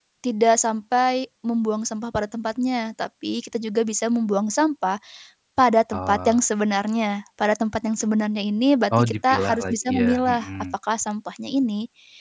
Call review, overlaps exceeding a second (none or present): present